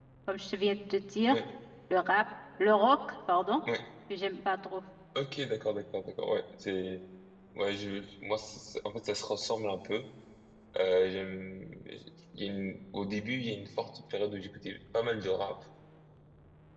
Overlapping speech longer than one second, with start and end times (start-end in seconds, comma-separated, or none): none